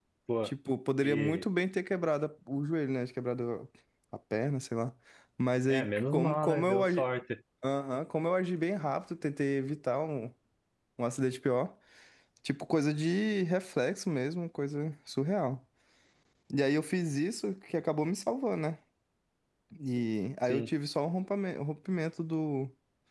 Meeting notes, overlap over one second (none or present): present